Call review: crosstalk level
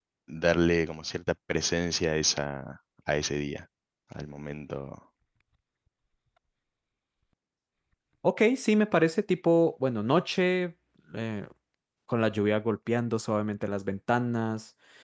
none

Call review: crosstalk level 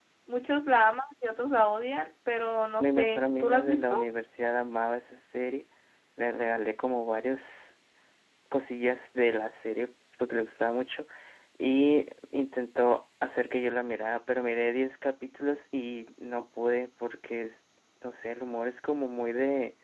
present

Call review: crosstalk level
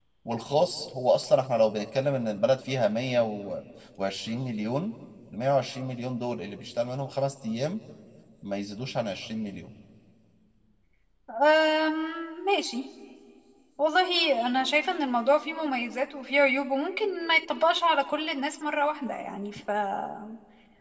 none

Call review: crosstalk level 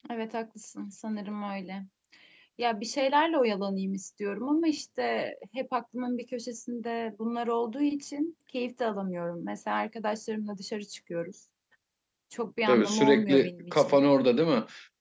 present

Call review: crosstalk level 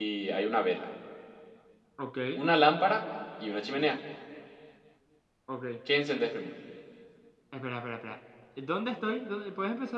none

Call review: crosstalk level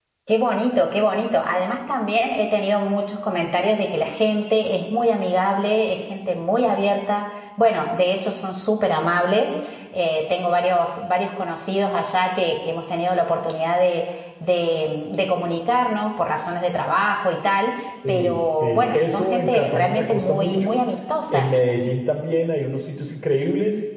present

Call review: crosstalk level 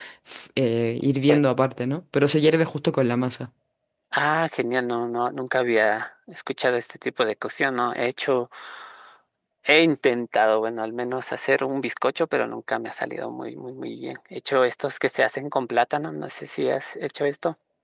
none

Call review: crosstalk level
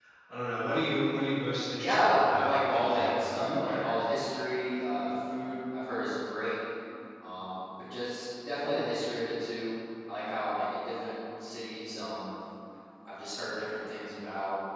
present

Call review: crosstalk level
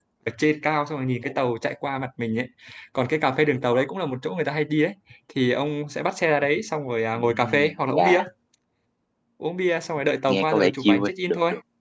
present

